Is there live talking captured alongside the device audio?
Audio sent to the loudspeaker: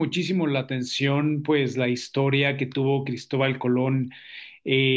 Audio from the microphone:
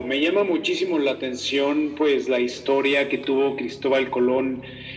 No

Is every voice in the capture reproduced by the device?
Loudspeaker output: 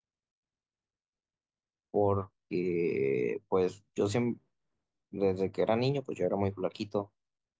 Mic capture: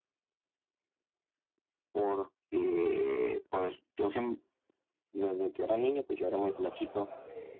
No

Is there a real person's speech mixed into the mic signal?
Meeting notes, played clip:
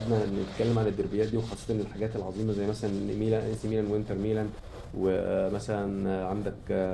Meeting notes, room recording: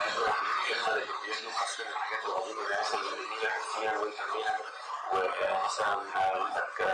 No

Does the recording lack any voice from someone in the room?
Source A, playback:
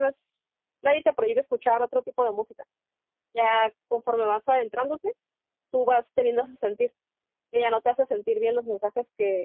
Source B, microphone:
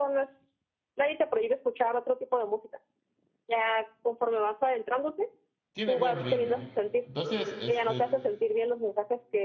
No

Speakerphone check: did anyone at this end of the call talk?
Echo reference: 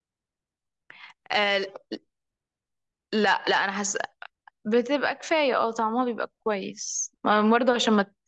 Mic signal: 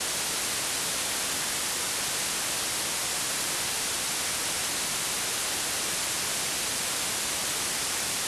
No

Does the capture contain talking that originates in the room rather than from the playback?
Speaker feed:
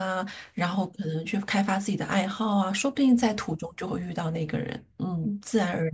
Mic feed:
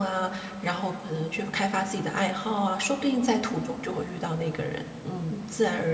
No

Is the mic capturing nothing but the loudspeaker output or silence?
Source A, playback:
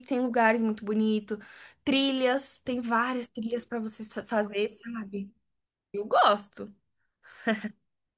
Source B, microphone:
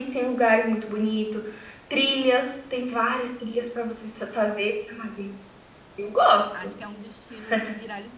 No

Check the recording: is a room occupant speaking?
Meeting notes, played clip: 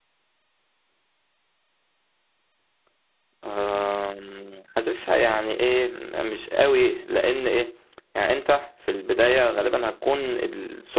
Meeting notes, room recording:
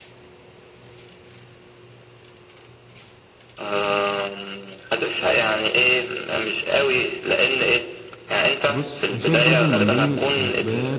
Yes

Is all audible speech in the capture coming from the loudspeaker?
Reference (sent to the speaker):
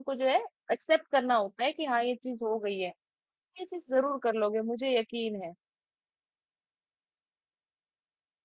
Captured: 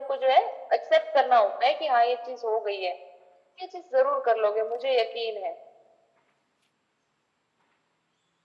Yes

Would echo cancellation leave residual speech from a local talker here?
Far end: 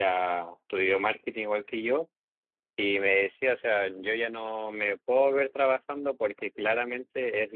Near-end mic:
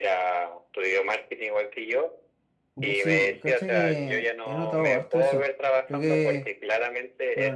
Yes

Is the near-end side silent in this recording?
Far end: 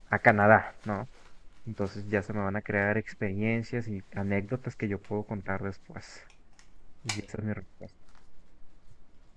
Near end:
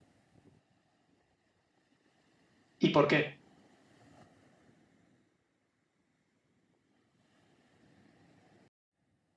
No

